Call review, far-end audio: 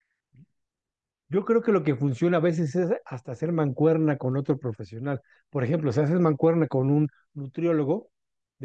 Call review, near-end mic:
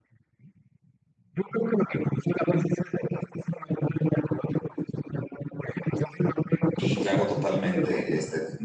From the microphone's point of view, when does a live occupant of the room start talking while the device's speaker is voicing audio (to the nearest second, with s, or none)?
7 s